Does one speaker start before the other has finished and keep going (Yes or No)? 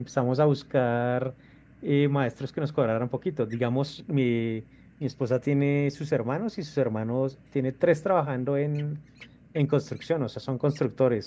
No